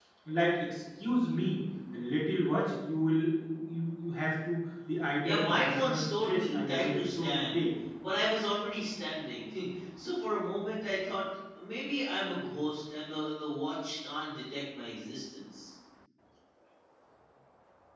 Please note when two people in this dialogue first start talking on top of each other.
5.2 s

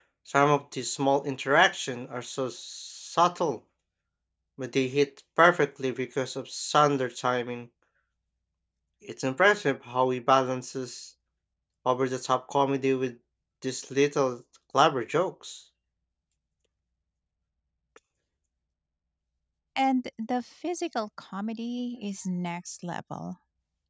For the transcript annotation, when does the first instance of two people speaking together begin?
none

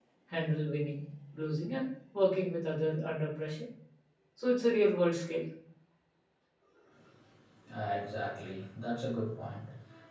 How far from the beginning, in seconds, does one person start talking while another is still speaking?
none

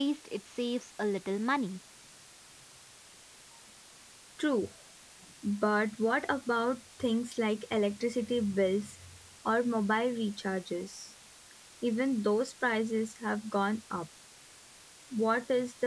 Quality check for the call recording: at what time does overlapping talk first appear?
none

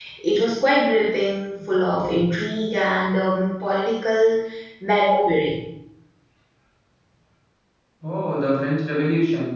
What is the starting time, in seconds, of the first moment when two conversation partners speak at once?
none

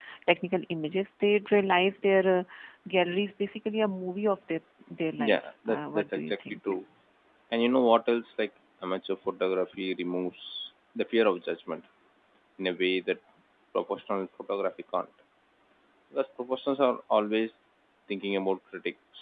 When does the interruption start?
5.3 s

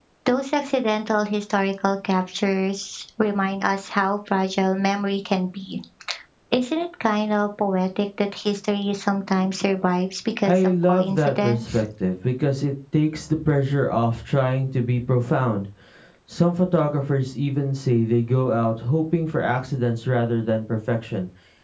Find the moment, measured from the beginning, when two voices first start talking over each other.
10.4 s

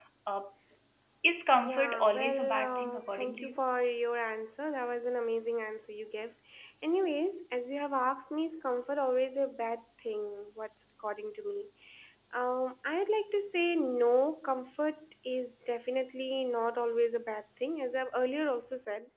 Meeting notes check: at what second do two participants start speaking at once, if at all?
1.6 s

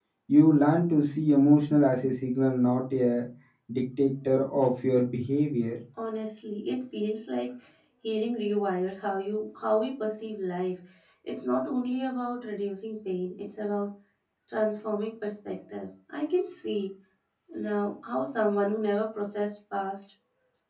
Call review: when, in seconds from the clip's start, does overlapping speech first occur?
none

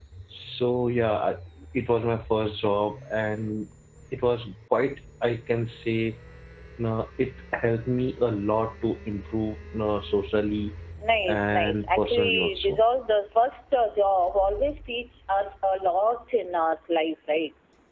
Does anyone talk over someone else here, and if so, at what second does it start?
11.3 s

